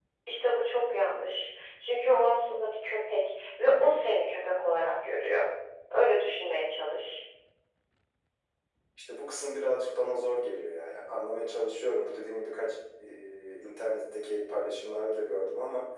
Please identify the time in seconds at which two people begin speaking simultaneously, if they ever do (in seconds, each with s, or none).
none